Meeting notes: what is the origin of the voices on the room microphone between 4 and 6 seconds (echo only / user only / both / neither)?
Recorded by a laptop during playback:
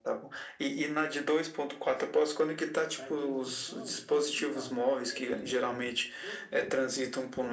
both